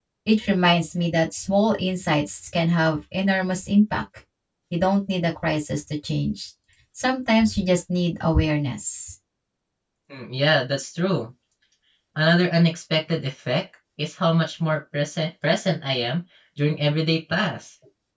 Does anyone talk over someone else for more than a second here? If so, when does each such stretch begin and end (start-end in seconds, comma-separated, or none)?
none